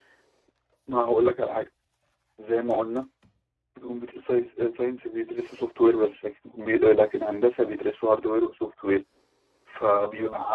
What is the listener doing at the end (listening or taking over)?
listening